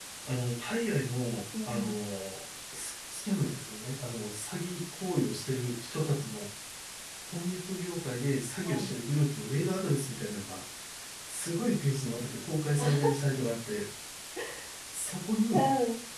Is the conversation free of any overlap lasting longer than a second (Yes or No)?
Yes